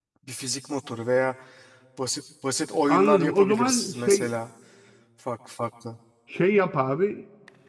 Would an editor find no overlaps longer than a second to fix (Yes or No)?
No